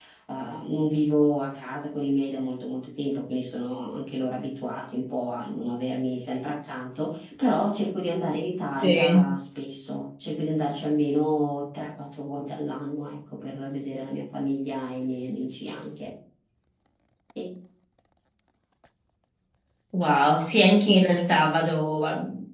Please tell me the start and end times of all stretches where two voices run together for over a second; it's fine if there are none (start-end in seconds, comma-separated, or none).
none